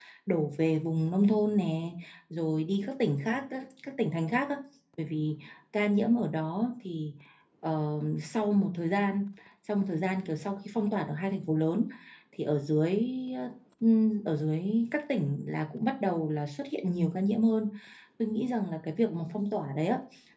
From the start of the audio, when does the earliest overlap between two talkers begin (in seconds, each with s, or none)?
none